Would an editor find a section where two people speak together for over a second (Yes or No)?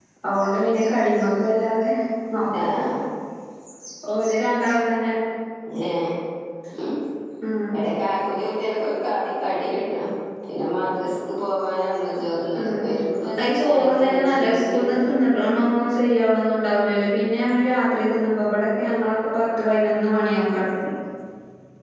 Yes